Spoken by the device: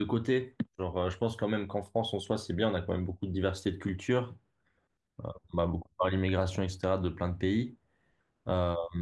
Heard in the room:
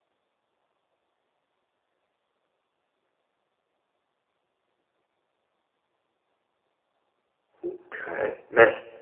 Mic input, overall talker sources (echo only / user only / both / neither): user only